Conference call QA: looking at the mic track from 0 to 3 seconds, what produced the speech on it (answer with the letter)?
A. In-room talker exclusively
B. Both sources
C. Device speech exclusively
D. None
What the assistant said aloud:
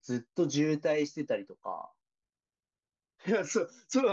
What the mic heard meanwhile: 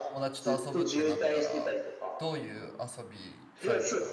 B